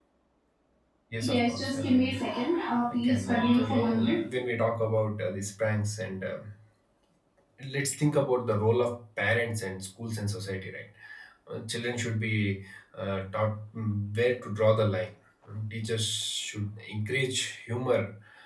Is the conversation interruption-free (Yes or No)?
No